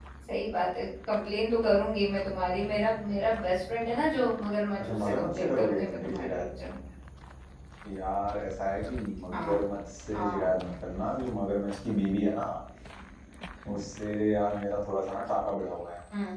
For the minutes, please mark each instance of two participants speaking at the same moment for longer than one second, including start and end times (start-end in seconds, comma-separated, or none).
4.8-6.5